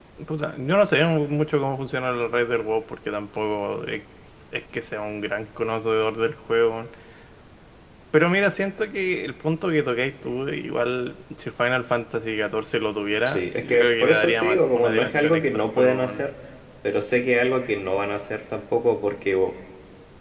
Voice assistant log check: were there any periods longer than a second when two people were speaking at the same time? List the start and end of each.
13.2-16.1

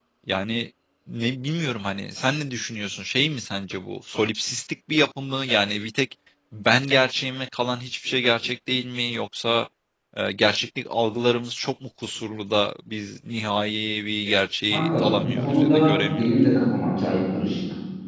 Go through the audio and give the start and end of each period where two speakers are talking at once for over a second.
14.7-16.4

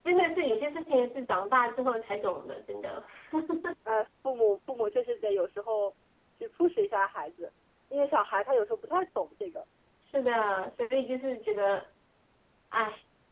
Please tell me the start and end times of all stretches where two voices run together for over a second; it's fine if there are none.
none

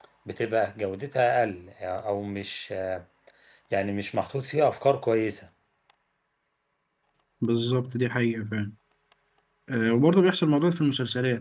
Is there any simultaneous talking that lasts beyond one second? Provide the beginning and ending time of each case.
none

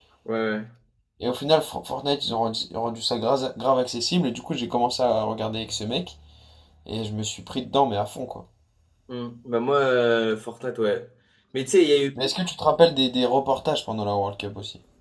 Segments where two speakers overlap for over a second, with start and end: none

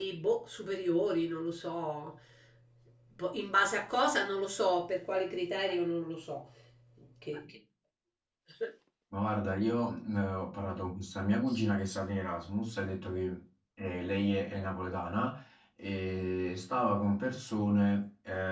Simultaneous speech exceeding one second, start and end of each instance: none

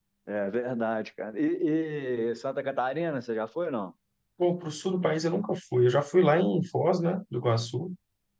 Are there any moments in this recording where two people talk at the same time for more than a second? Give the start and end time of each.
none

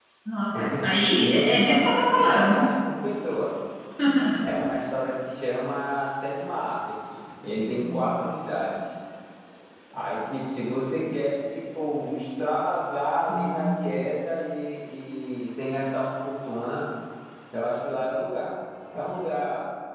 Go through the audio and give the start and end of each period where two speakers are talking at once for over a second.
1.2-2.6

